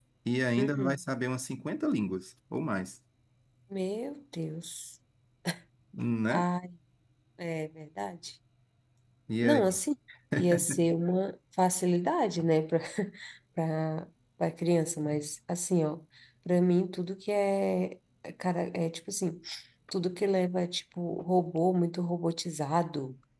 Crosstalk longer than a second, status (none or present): none